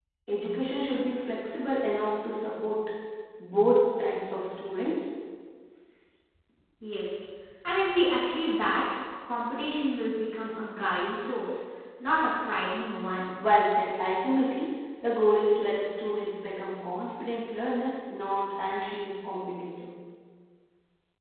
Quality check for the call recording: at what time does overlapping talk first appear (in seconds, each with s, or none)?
none